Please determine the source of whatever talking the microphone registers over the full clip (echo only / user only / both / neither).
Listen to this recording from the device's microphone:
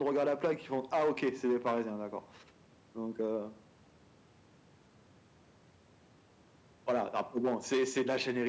echo only